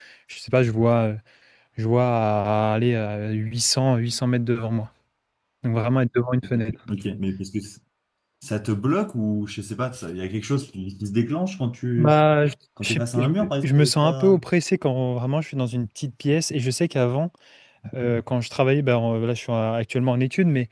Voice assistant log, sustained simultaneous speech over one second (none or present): present